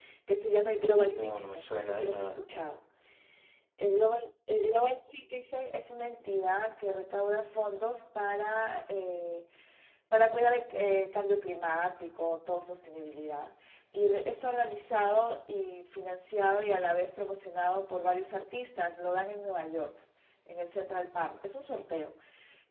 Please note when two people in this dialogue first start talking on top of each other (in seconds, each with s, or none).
1.0 s